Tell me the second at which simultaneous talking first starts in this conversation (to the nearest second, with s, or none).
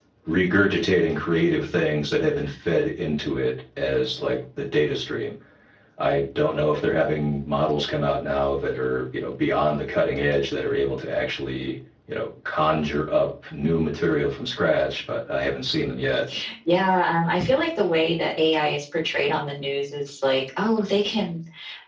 none